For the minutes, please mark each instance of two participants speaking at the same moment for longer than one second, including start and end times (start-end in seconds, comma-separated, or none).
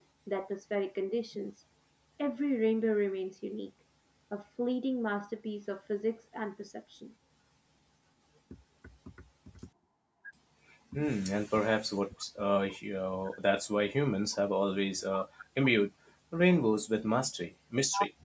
none